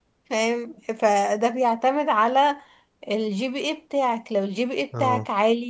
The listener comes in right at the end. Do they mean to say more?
No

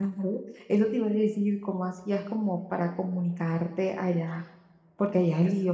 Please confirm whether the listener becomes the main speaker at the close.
Yes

